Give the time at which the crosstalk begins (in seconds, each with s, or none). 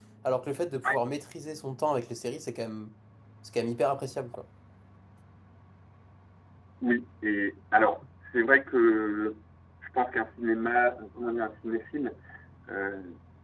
none